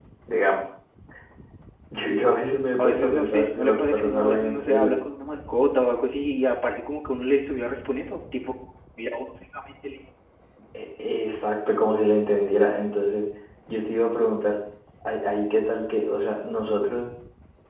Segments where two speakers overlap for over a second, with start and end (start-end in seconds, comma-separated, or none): 2.8-5.0